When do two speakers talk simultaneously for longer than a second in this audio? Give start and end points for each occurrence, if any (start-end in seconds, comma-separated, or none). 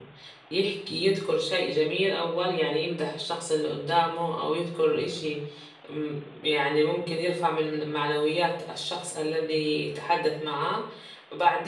none